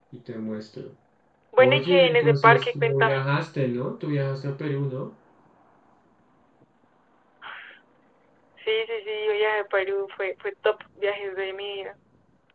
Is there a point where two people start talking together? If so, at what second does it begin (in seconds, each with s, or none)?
1.6 s